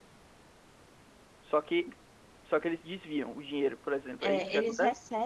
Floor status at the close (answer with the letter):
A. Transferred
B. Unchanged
A